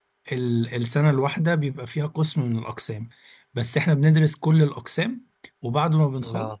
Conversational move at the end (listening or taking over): listening